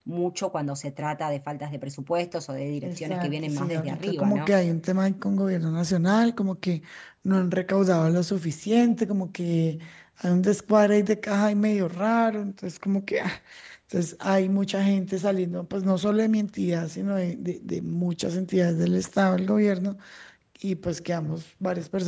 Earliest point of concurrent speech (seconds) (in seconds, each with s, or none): 2.8 s